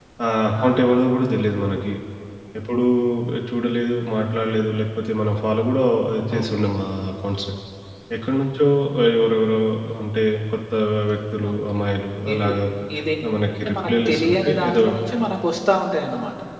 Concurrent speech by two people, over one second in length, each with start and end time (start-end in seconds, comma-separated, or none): 13.5-14.8